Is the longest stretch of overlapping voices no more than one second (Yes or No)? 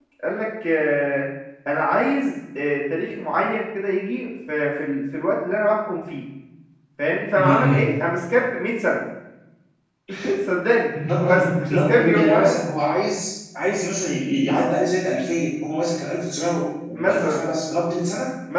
No